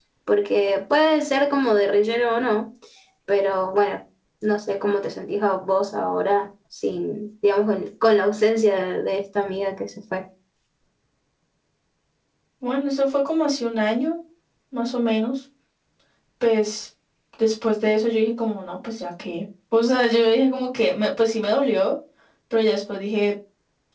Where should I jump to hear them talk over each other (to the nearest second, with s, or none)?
none